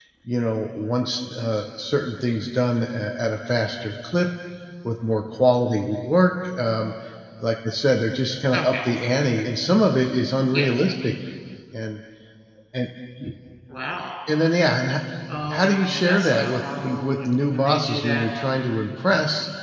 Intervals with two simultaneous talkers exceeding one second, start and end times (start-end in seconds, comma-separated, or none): 15.5-18.3